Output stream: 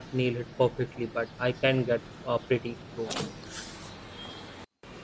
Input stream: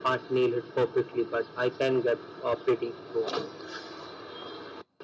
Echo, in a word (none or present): present